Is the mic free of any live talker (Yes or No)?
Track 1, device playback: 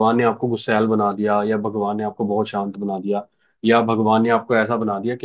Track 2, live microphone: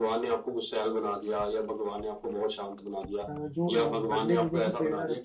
No